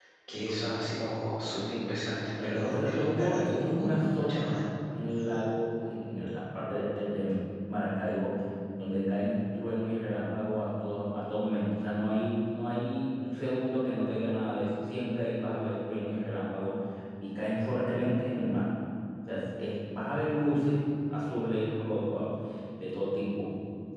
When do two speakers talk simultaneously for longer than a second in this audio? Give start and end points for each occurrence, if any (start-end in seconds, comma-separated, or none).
2.4-4.3